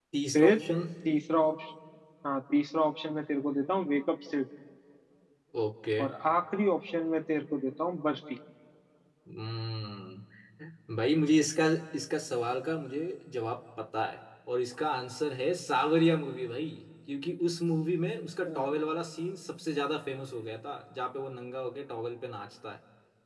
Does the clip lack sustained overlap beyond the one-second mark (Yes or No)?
Yes